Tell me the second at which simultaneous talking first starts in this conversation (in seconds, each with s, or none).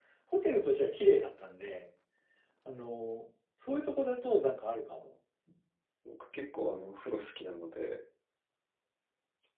none